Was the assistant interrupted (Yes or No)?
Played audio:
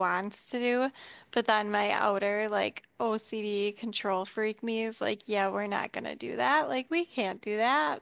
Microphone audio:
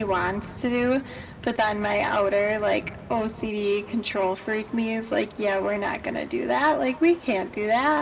No